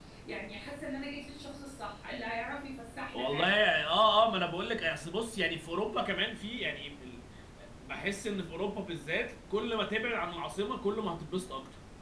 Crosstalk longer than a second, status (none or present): none